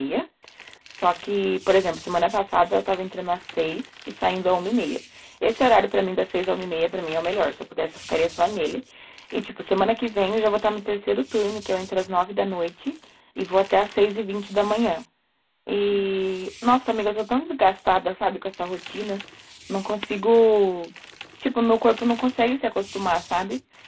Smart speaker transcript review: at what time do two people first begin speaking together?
none

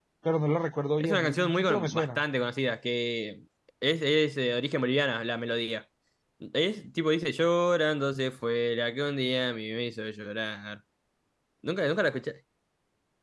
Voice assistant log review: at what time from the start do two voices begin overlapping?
1.0 s

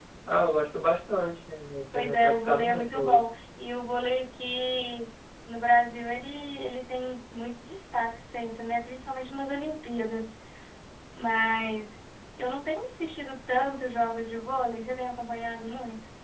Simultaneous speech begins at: 1.9 s

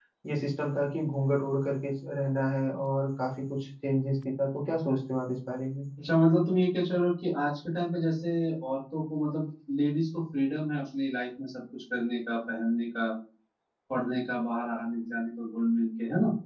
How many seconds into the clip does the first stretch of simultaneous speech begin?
none

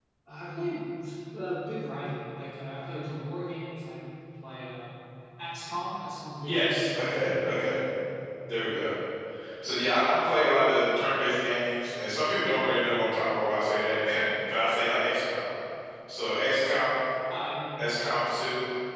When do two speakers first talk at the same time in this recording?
6.4 s

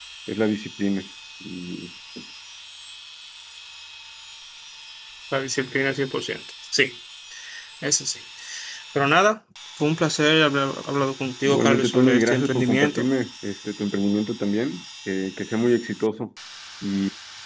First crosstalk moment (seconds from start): 11.4 s

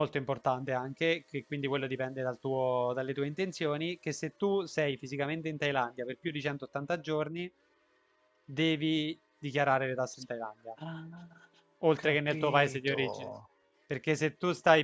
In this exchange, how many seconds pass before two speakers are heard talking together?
12.0 s

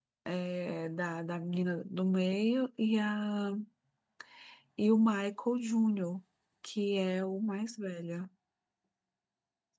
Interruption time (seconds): none

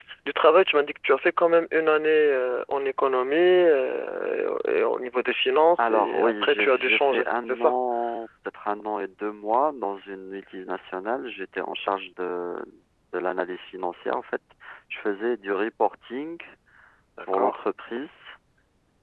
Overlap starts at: 5.8 s

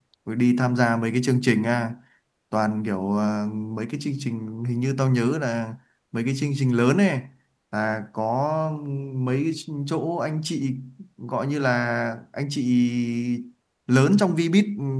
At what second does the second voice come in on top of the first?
none

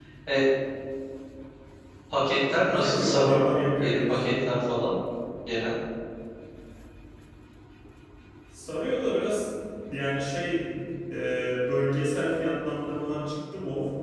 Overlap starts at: 2.2 s

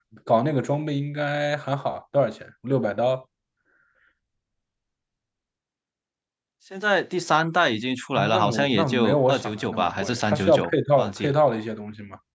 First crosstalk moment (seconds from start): 8.2 s

